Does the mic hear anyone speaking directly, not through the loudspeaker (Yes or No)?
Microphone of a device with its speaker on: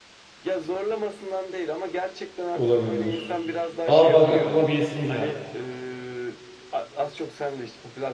Yes